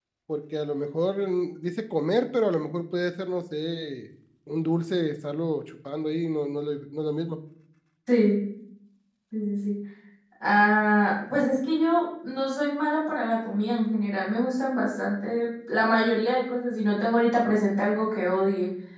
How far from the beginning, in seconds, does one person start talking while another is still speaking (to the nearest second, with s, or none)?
none